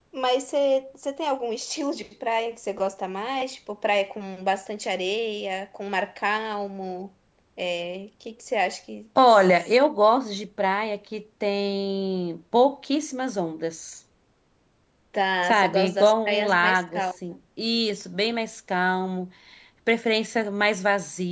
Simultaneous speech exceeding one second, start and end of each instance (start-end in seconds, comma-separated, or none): 15.4-17.0